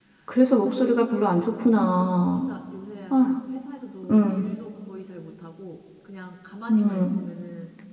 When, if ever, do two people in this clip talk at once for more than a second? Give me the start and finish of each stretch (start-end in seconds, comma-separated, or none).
none